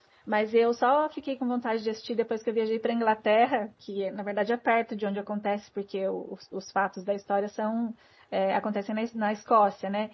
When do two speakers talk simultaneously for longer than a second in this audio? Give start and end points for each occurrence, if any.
none

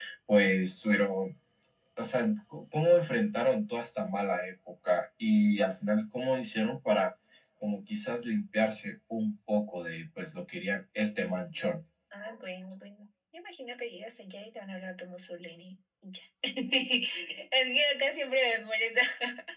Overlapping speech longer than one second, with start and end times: none

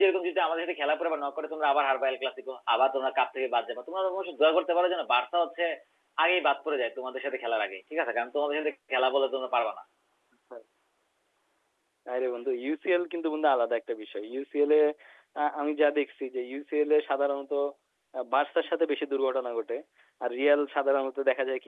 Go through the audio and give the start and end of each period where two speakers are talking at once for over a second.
none

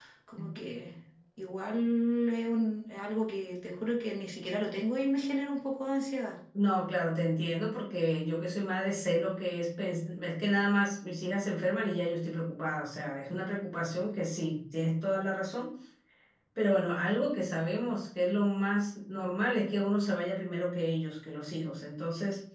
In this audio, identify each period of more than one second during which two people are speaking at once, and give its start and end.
none

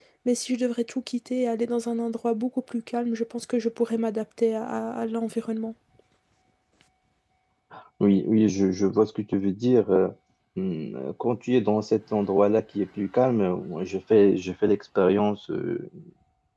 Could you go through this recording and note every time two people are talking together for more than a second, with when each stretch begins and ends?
none

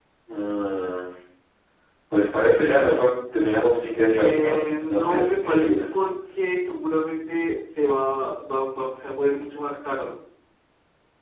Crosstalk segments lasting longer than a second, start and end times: 4.2-5.8

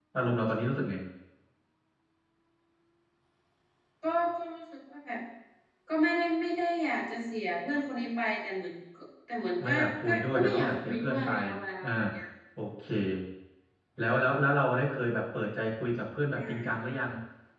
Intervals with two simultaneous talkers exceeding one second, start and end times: 9.6-11.3

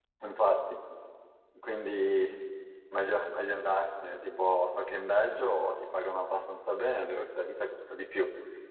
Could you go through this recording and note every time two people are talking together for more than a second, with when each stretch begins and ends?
none

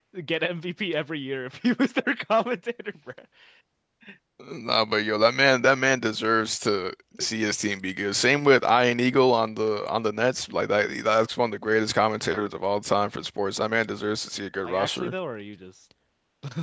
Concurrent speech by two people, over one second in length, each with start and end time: none

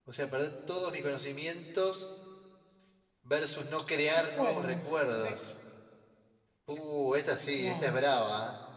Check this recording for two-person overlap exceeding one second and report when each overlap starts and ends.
4.2-5.4

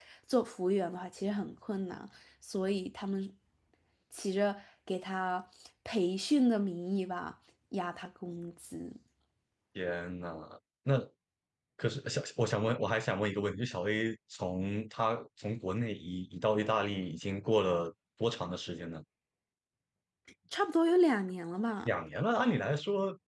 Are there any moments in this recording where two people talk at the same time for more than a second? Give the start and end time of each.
none

